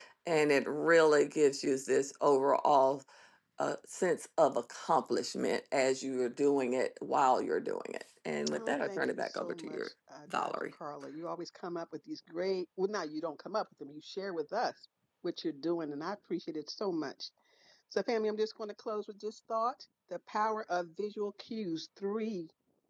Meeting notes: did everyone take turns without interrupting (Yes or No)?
No